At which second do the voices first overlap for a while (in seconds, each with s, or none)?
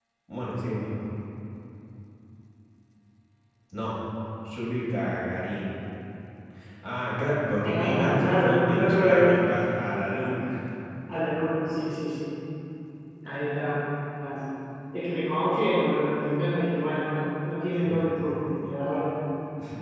7.6 s